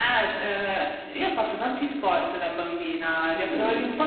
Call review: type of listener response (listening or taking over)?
listening